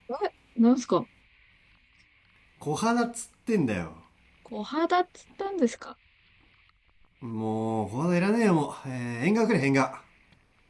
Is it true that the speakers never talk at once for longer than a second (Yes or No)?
Yes